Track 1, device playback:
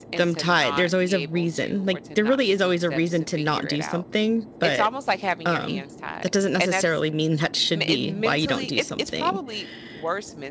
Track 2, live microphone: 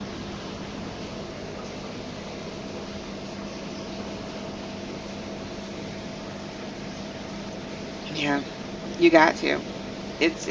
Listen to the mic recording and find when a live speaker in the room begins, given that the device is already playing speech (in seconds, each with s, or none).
8.1 s